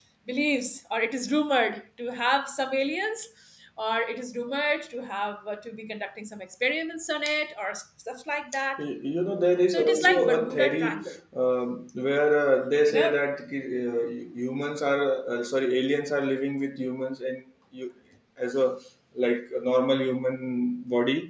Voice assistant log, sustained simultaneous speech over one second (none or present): present